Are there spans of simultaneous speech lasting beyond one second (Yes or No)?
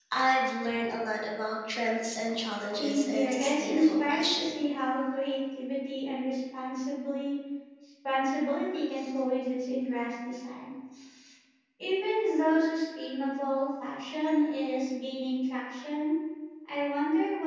Yes